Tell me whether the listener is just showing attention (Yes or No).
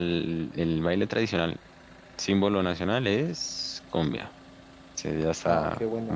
No